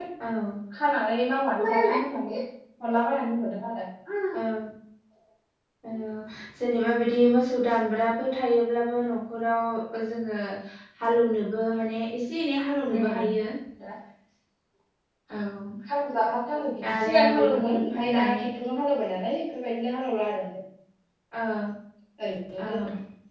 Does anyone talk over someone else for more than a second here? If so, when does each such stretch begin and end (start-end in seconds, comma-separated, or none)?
16.9-18.4